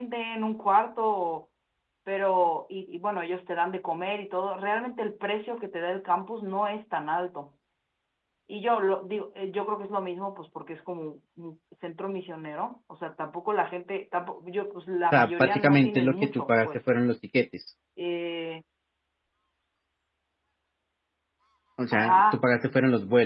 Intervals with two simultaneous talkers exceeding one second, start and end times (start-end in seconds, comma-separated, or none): 15.1-16.9